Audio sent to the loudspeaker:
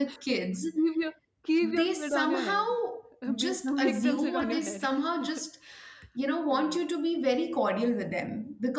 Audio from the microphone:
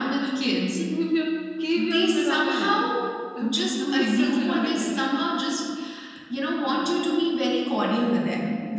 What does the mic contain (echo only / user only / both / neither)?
echo only